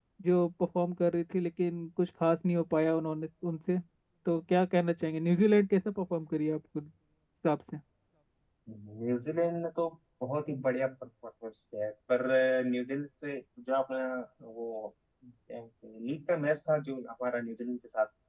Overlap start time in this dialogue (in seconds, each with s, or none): none